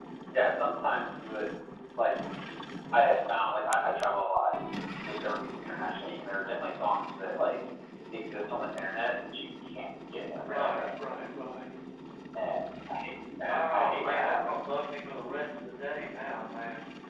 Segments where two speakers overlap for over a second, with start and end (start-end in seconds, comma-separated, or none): 13.5-14.7